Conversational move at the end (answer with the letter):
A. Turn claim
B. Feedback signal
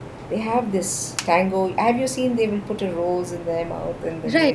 A